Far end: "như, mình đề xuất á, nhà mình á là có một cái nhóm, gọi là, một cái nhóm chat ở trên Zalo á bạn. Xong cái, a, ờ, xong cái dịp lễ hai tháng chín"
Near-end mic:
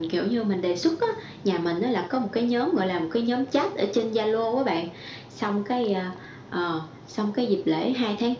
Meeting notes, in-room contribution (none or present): none